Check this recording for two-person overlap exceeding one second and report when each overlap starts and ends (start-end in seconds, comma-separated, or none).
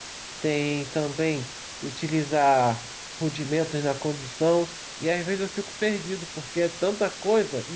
none